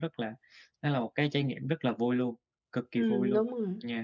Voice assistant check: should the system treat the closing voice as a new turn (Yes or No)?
Yes